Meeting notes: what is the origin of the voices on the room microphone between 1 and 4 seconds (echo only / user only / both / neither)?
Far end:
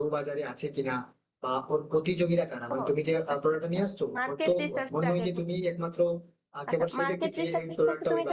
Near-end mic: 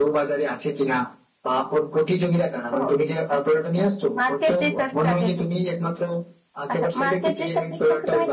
echo only